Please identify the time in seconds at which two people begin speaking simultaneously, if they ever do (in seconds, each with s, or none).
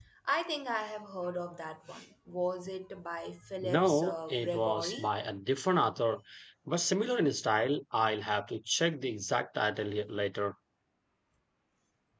3.6 s